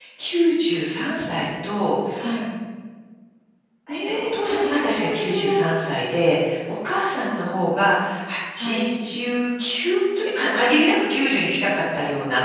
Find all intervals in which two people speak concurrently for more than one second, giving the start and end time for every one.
4.0-5.6

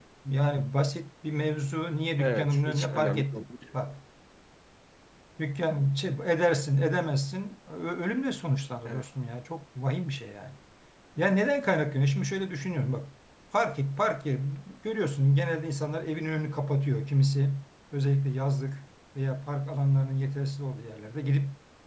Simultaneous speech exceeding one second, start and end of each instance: 2.2-3.4

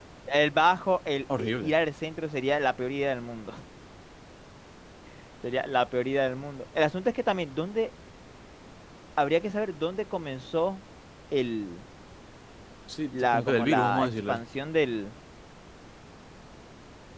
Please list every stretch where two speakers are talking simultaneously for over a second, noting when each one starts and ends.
13.1-14.4

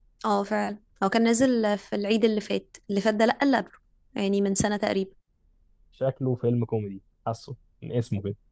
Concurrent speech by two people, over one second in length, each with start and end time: none

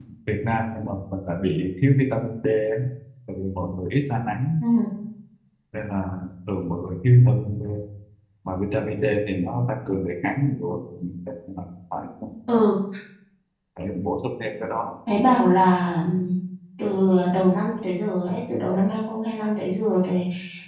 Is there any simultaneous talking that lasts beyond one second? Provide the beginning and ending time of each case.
none

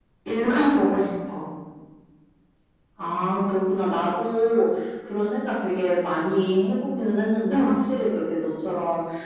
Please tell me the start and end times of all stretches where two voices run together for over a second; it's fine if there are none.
none

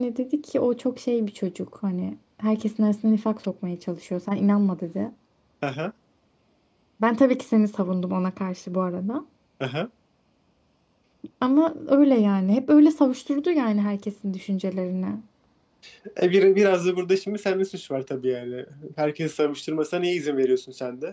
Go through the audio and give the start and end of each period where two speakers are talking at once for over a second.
none

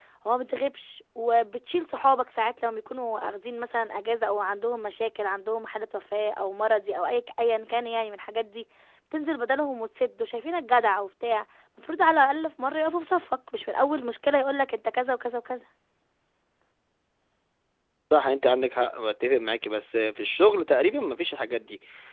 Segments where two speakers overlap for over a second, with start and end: none

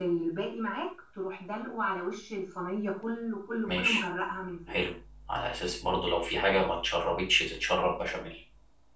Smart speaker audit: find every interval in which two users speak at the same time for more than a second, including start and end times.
none

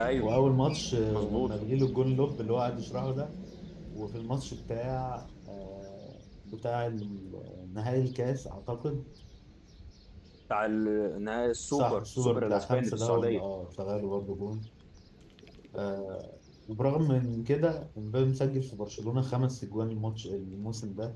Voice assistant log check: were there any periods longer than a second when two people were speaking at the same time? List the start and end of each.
11.7-13.4

